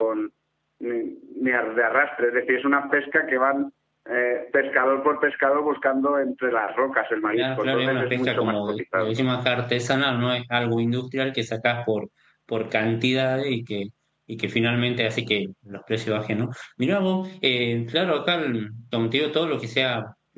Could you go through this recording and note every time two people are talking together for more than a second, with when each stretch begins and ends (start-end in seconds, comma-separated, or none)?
7.3-9.1